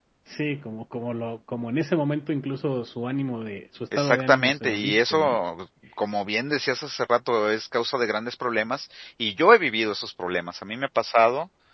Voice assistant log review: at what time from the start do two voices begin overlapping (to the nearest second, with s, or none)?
4 s